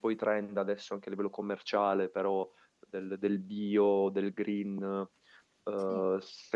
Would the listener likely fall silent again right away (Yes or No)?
Yes